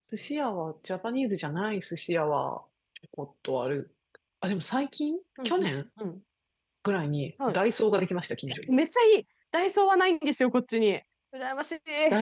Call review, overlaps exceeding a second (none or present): none